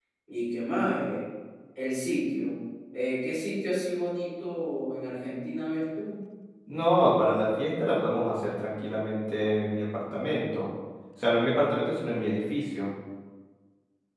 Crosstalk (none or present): none